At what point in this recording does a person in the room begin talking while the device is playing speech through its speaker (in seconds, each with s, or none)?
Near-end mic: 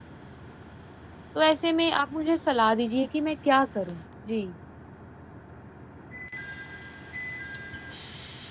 1.4 s